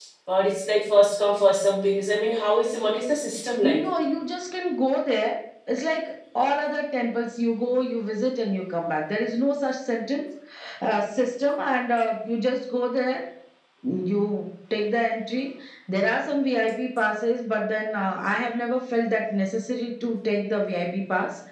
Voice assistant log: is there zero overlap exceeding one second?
Yes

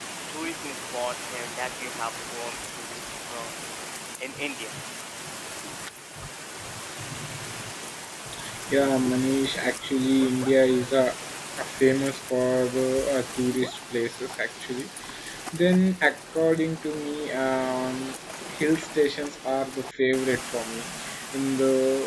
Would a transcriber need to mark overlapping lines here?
No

